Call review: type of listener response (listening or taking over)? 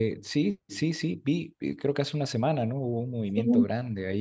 listening